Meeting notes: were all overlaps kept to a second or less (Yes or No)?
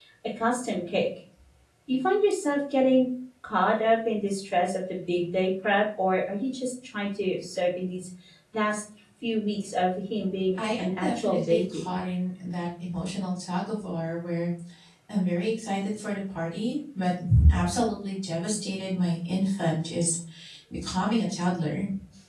No